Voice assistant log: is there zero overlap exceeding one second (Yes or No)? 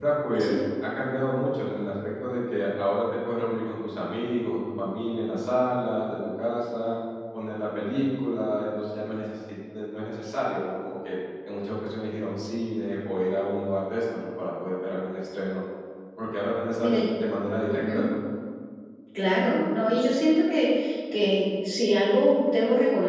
Yes